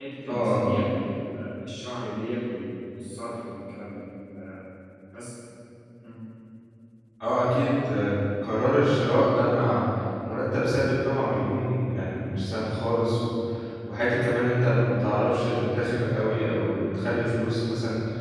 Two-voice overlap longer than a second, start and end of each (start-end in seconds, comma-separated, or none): none